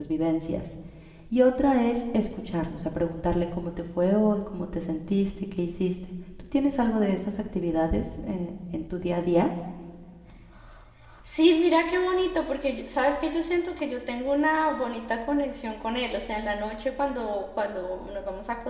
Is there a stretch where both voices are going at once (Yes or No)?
No